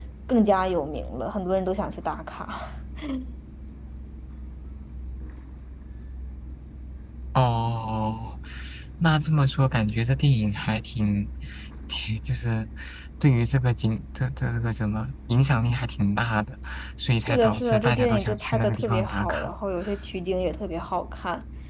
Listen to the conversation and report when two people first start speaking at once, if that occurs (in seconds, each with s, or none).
17.2 s